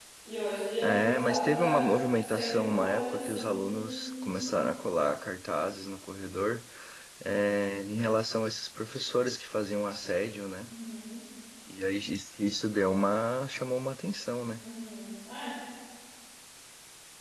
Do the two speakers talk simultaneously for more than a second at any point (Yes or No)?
Yes